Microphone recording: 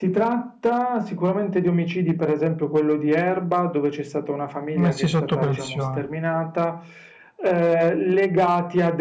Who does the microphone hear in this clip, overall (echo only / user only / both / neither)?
both